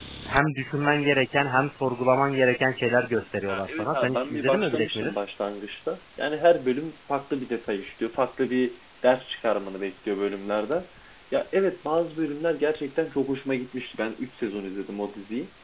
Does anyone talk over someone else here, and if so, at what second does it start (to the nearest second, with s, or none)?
3 s